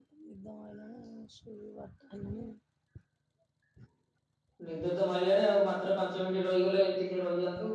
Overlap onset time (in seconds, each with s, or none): none